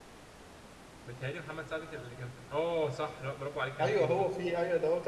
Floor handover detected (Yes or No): Yes